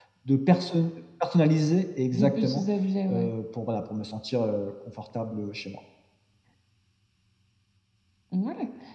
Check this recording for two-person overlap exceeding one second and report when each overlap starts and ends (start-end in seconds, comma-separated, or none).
none